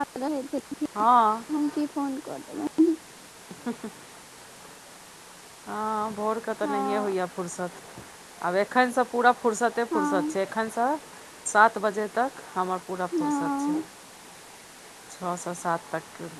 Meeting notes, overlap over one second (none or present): none